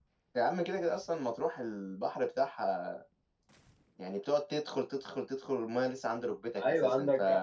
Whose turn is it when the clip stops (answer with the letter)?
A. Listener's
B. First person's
A